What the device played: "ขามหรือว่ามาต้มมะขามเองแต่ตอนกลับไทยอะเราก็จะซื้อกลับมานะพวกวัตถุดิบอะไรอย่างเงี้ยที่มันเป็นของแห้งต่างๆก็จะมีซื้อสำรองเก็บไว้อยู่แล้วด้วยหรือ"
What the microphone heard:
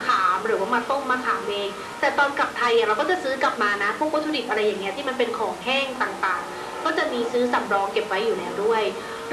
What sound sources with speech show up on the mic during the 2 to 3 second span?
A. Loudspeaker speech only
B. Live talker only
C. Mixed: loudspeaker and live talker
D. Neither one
A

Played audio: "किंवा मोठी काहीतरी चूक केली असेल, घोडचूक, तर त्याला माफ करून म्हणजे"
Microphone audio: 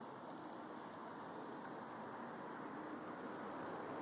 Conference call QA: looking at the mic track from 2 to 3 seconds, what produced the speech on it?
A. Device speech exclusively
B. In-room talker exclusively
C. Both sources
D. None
D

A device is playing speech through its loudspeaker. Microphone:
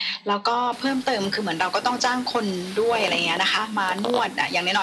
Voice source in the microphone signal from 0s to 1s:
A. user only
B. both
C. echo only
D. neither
C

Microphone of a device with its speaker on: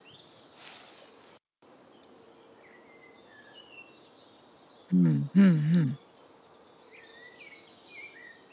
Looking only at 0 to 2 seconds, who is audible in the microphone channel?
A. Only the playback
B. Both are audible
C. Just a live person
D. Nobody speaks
D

